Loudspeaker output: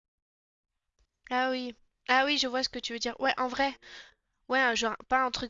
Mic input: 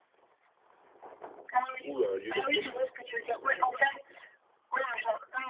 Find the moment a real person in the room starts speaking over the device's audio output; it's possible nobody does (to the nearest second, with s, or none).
2 s